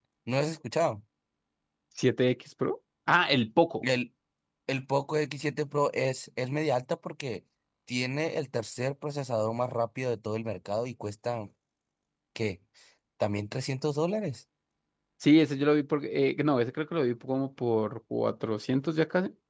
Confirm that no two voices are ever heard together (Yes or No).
Yes